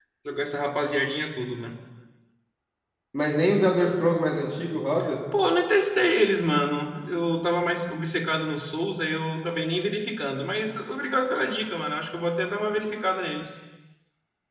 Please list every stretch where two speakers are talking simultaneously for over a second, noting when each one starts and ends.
none

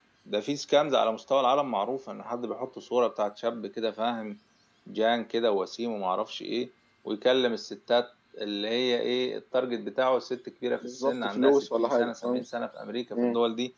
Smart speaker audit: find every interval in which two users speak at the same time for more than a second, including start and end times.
10.8-12.4

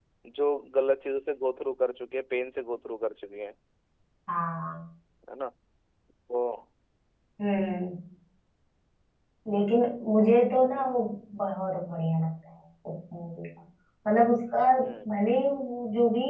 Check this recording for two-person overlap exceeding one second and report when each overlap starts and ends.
none

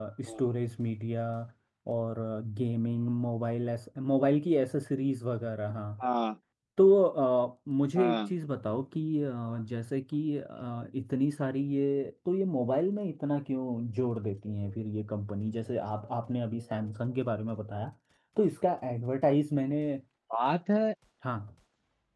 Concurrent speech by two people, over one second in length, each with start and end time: none

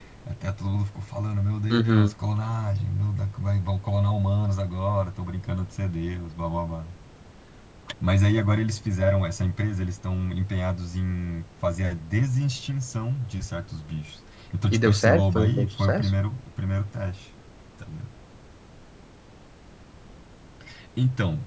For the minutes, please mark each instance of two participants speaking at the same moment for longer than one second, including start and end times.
14.7-16.1

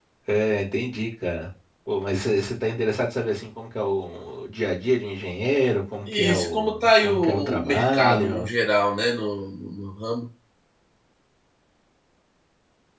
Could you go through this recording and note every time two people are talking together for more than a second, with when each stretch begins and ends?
6.1-8.5

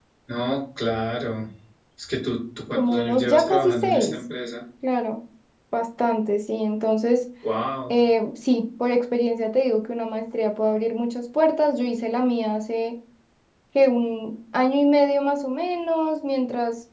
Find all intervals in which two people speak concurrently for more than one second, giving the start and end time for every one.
2.7-4.2

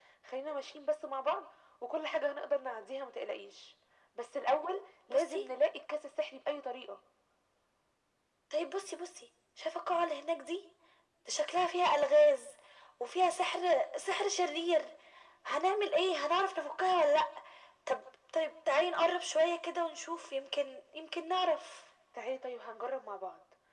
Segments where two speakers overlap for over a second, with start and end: none

